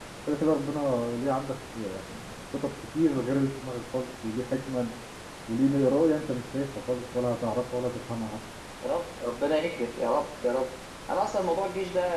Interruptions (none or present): none